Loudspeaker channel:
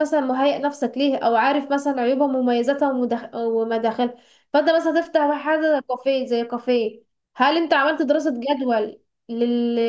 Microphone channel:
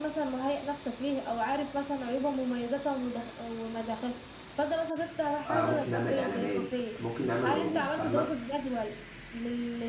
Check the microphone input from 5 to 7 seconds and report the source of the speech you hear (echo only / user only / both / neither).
both